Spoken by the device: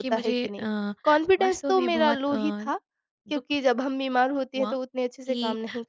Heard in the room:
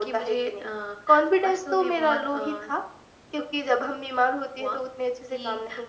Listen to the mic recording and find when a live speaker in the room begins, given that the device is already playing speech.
none

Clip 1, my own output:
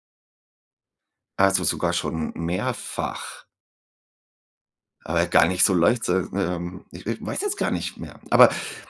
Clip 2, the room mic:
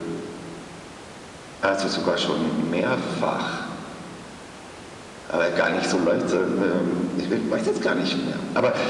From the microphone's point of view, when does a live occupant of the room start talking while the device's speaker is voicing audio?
none

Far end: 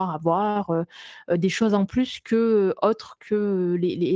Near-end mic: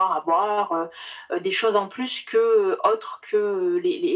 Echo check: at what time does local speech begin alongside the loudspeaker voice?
none

